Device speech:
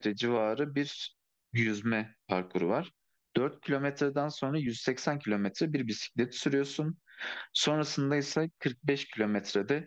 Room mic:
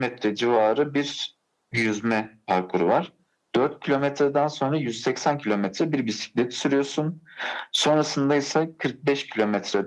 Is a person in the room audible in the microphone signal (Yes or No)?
No